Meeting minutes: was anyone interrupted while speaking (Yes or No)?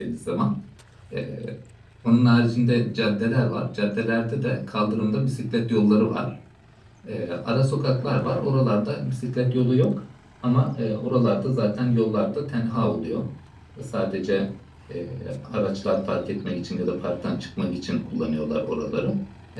No